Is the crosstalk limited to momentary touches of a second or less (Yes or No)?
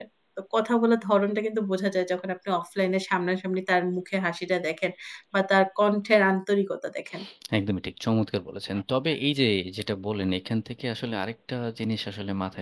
Yes